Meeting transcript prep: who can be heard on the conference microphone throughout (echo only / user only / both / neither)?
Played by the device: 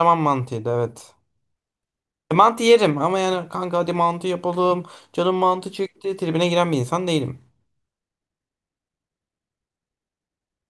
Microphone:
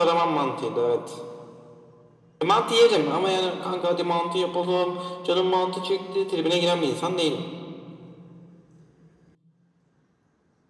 echo only